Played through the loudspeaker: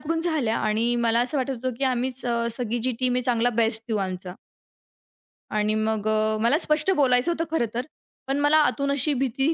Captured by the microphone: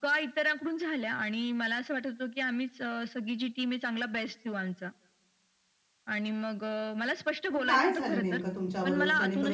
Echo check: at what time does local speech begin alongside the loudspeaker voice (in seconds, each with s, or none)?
7.5 s